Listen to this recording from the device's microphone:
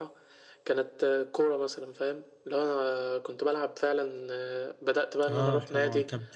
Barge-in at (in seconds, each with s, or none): 5.3 s